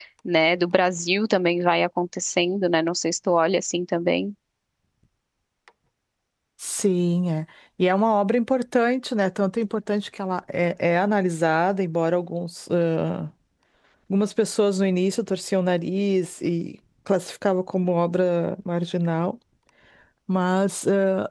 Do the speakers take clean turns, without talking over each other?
Yes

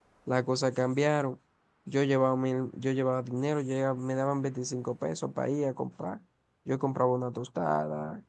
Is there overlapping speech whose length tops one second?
No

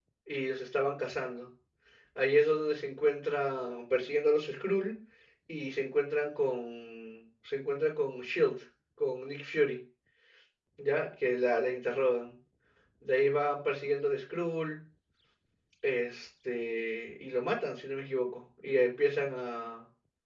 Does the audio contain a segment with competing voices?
No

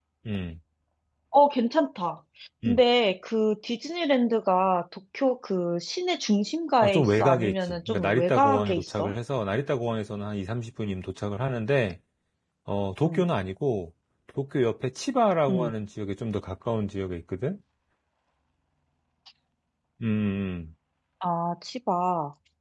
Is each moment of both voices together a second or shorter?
No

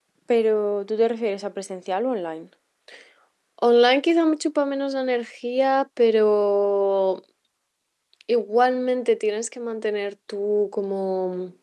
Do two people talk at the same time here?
No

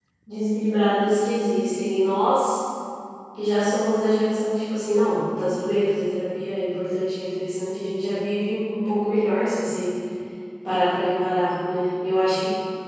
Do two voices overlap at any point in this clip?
No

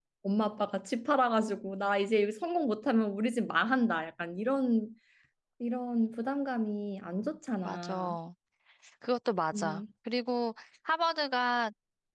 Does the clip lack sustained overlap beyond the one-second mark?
Yes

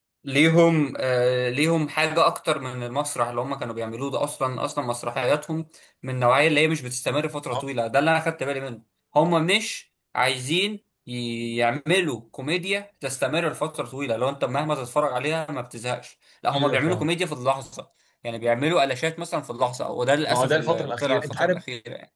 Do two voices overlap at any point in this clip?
Yes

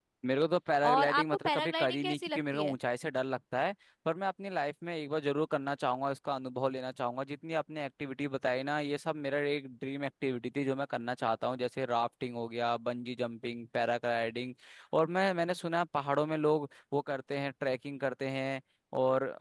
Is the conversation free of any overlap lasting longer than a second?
No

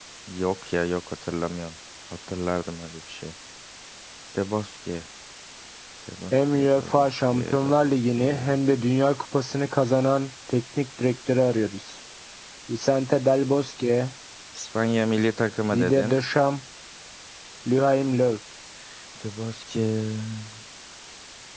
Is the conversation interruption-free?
No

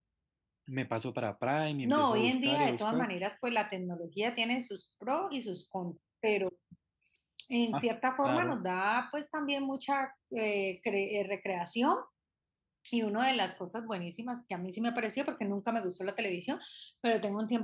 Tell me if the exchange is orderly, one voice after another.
No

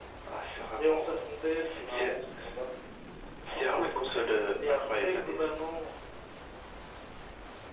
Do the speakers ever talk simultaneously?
Yes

